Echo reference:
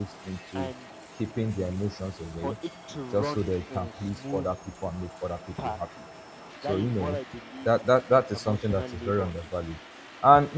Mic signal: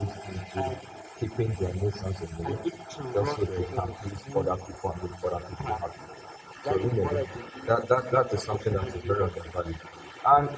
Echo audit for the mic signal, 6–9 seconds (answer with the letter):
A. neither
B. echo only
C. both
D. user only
B